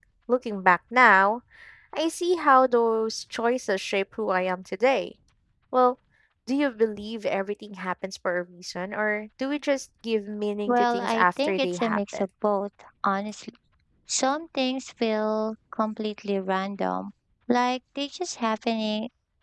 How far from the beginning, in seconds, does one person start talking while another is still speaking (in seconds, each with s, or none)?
10.7 s